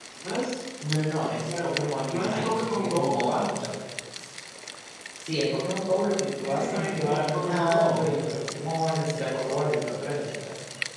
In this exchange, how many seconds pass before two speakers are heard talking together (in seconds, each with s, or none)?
1.4 s